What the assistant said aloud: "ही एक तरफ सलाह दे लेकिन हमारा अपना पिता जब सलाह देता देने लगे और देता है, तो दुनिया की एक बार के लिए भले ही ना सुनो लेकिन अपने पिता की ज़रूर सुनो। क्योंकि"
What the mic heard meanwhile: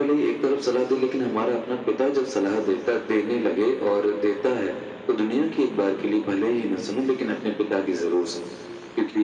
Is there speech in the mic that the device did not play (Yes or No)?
No